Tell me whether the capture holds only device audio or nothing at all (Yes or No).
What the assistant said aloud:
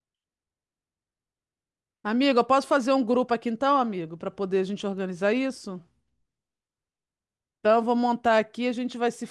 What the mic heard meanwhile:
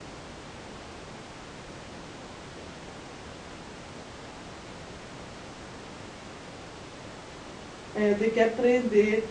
No